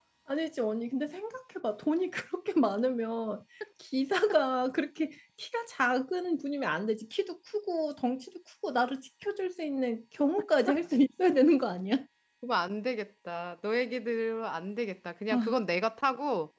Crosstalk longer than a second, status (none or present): none